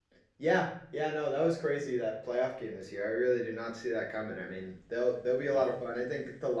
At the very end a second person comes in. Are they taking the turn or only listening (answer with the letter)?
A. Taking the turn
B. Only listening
B